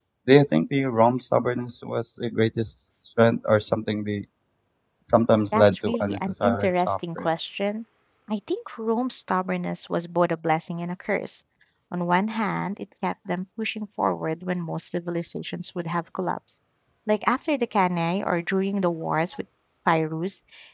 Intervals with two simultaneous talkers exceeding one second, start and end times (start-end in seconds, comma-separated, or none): 5.5-7.2